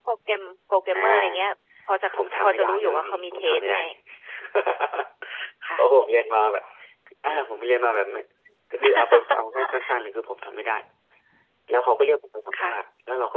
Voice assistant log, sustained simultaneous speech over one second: present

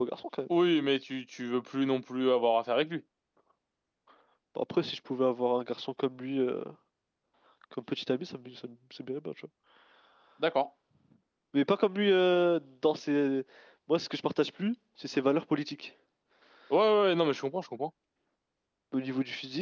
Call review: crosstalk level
none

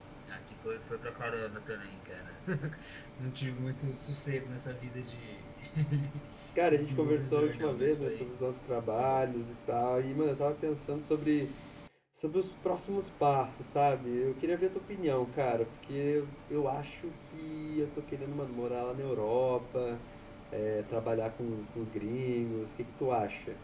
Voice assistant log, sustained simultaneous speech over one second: present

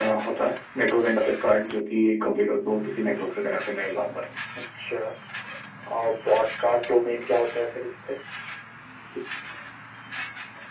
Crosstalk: none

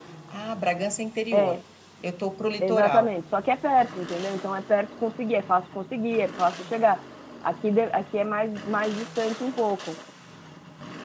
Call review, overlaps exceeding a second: none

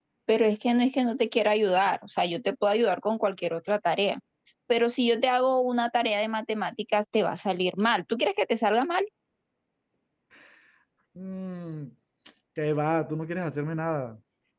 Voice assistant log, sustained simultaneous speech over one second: none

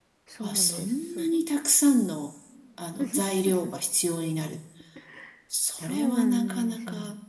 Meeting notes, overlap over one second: present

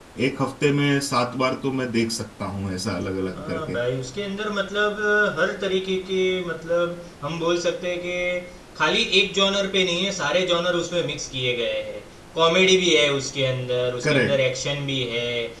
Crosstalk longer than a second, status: none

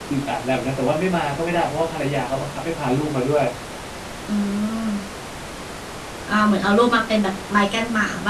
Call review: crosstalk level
none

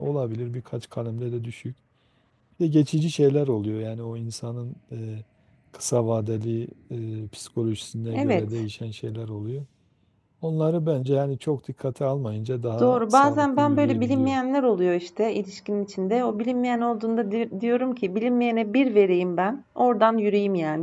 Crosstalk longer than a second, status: present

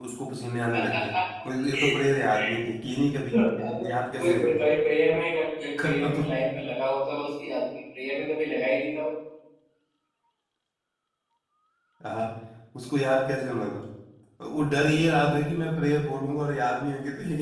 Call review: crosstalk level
present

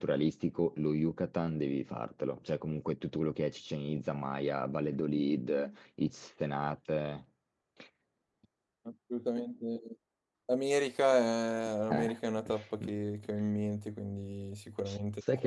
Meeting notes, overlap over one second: none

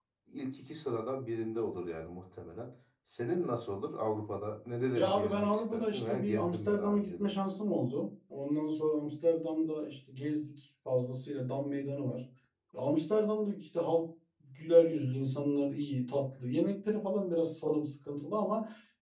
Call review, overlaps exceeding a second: present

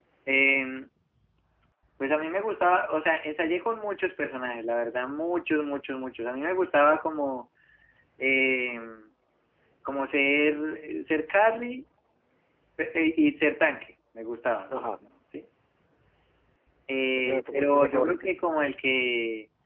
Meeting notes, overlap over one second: present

